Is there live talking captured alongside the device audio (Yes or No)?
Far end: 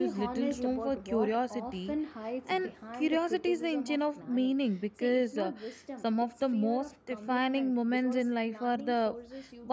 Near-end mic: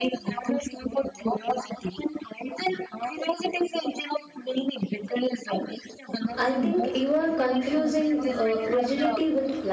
Yes